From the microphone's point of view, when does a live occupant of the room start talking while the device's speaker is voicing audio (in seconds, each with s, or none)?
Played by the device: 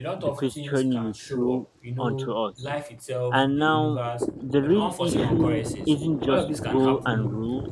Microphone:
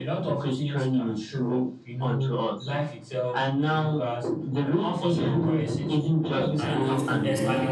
6.6 s